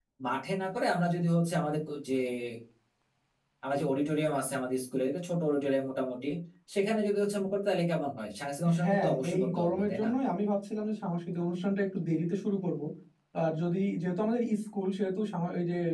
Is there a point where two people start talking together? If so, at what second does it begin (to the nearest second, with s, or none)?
9 s